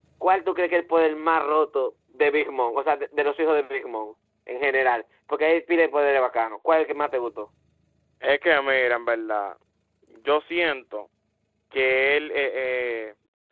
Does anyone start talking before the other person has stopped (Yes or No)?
No